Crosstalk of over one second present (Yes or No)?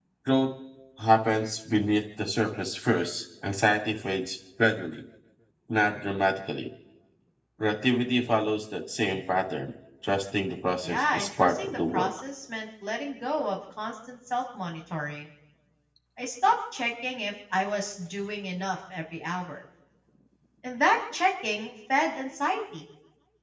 Yes